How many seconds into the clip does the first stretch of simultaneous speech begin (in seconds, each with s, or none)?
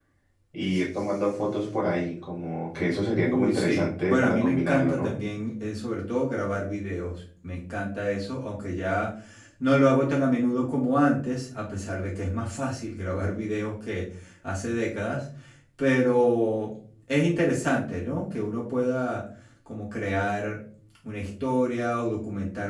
3.2 s